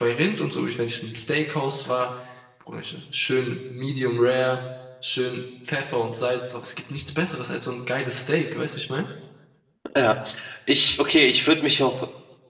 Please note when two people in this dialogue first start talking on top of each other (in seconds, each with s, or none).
none